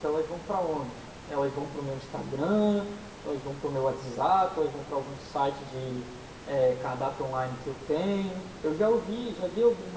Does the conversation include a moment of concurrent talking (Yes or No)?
No